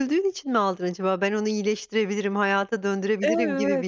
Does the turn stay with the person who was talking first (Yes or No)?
No